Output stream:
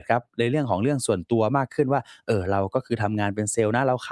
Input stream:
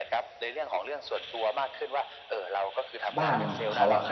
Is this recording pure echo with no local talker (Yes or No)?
No